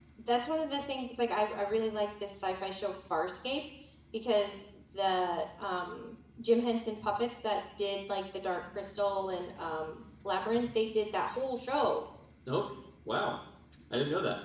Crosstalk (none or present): none